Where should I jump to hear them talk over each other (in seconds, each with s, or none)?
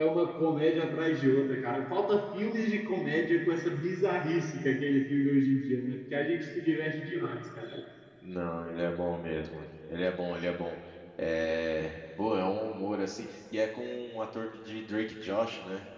none